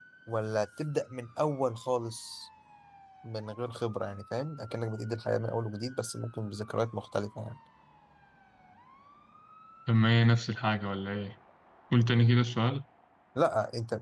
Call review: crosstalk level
none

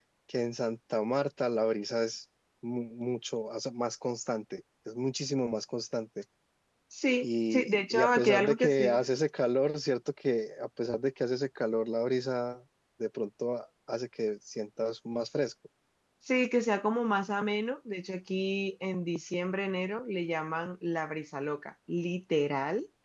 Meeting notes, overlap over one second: present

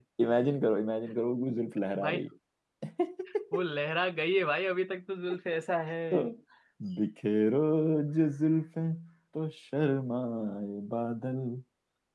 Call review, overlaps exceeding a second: none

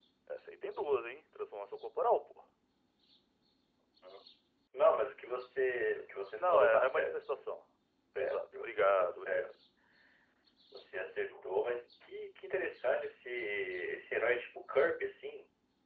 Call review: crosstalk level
present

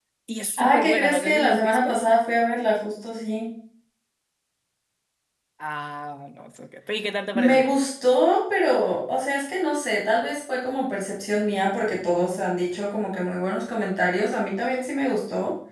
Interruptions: present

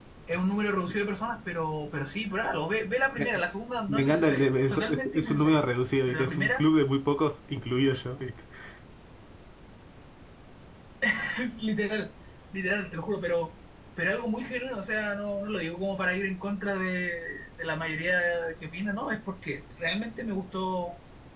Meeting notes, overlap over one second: present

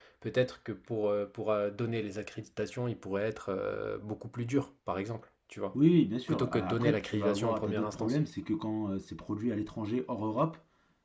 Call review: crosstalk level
present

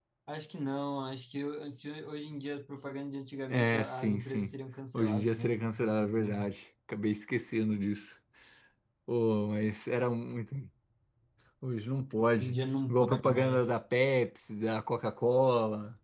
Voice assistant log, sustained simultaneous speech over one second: present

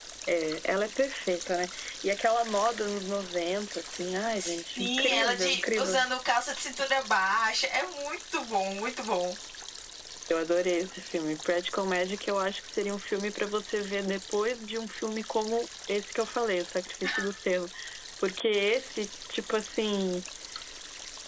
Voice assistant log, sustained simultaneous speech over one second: present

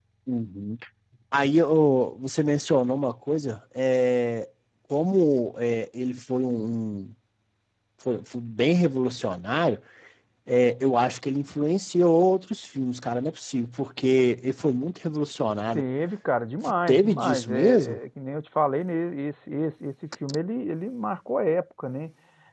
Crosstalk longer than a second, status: present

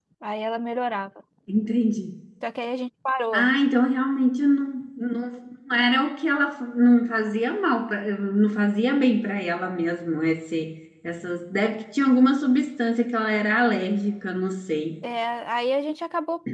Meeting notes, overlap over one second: none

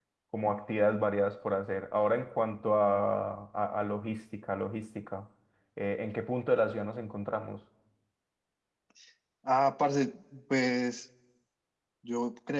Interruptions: none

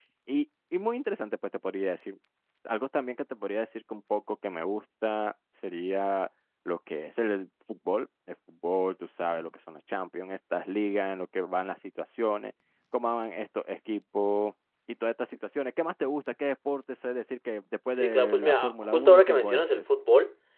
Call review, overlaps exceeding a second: present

